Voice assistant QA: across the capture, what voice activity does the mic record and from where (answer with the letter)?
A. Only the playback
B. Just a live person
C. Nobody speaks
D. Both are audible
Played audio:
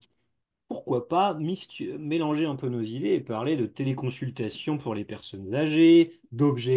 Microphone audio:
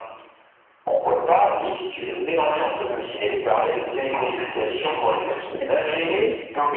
D